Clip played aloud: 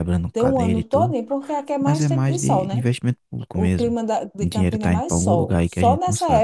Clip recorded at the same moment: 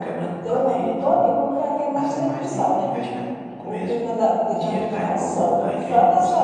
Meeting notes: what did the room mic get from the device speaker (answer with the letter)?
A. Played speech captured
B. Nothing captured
A